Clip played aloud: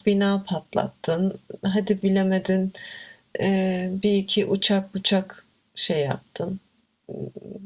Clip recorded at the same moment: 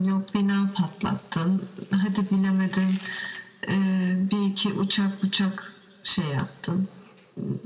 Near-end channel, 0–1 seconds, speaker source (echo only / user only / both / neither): echo only